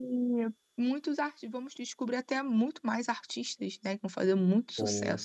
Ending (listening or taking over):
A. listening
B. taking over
B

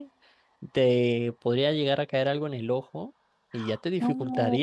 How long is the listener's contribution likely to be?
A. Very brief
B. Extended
A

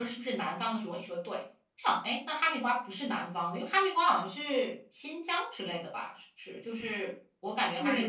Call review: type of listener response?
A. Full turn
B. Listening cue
A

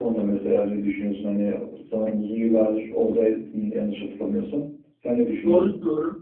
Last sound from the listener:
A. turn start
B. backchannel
A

